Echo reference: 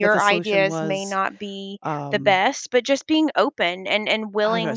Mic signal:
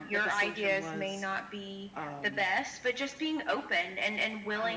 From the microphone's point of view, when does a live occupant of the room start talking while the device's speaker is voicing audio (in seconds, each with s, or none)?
none